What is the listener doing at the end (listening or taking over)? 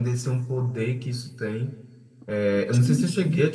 listening